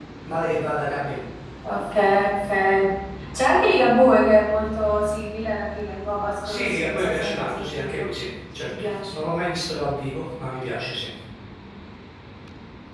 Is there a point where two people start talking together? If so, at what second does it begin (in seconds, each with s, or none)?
6.4 s